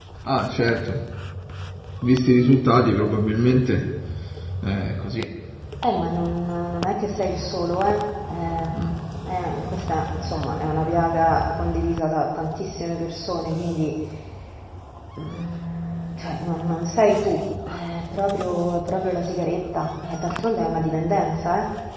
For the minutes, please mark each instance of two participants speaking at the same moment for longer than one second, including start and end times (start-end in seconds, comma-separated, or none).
none